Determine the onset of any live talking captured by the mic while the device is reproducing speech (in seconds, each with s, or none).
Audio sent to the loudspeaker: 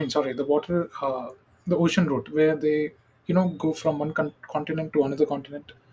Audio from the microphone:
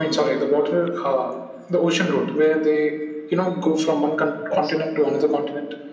4.5 s